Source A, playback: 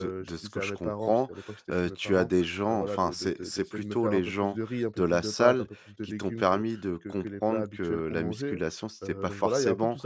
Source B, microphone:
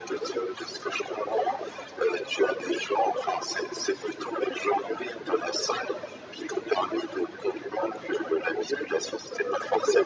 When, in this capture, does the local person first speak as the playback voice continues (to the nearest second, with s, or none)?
none